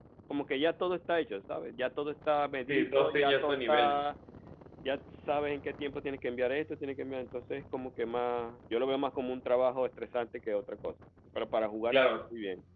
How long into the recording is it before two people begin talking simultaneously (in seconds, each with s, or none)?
2.7 s